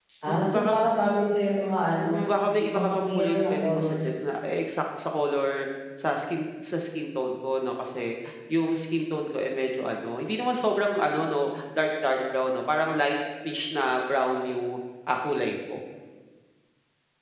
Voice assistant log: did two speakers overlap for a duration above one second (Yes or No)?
Yes